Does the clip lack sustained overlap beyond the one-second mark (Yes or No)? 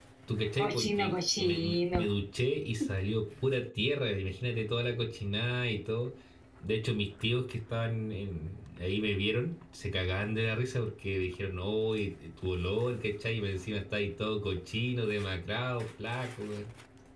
No